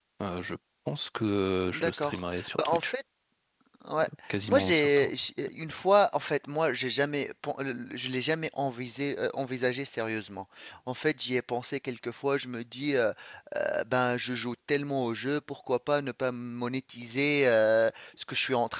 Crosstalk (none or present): present